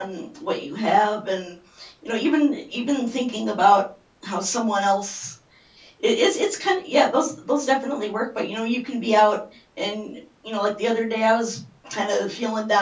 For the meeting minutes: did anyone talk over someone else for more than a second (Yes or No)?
No